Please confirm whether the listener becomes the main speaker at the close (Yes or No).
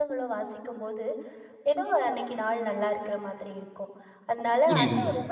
No